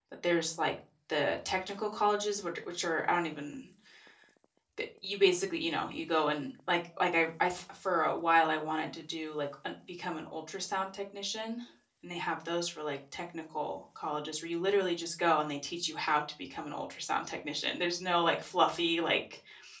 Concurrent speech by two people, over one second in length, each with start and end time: none

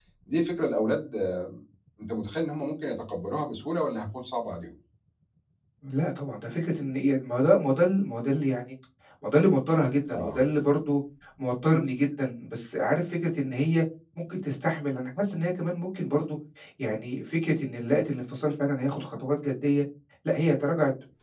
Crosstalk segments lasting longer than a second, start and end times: none

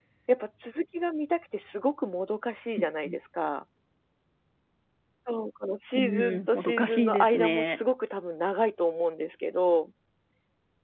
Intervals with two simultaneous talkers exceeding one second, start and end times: 6.0-7.6

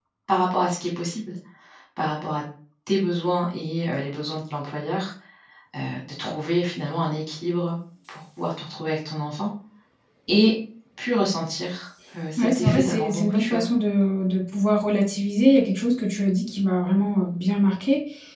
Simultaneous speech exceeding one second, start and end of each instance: 12.4-13.6

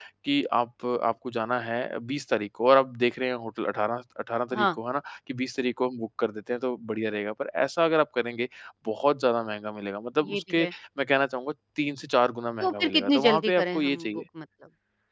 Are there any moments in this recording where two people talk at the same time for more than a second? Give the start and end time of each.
12.6-14.1

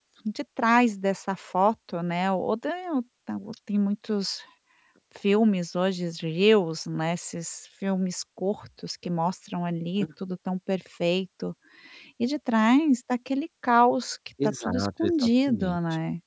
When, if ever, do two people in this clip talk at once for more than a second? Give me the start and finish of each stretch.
14.4-15.8

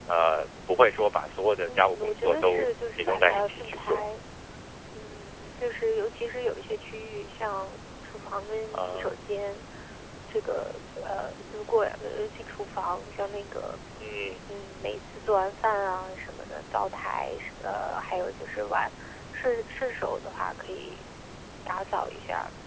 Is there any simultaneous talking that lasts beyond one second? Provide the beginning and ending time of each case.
1.6-4.0

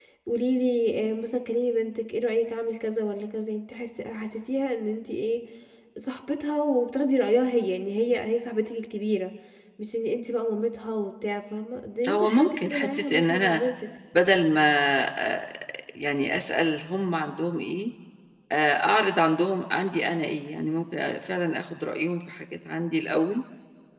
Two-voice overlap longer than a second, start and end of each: 12.1-13.6

